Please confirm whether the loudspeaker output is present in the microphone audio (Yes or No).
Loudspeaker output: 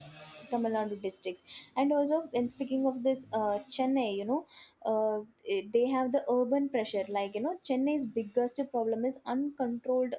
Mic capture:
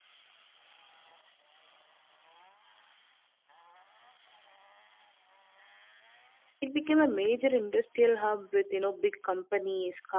No